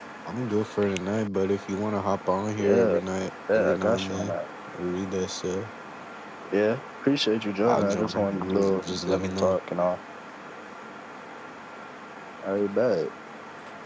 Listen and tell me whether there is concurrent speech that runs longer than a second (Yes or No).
Yes